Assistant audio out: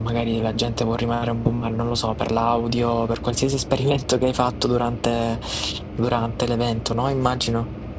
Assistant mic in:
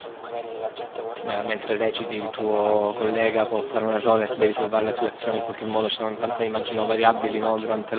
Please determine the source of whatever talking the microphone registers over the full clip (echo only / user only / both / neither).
both